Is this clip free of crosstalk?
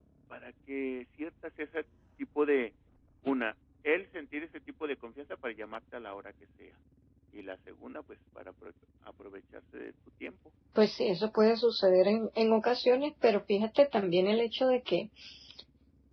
Yes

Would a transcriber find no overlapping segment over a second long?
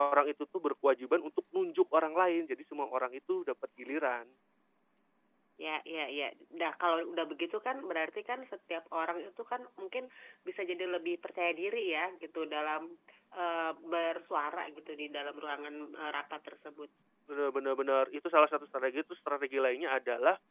Yes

